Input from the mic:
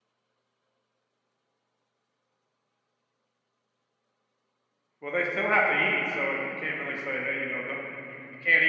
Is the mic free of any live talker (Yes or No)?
No